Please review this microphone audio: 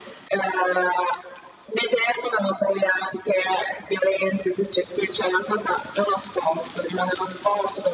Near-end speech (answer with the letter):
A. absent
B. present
A